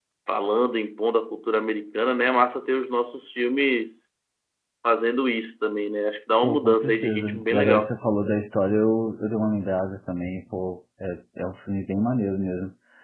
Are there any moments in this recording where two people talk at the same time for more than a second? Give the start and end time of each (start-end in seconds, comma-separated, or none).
6.4-7.9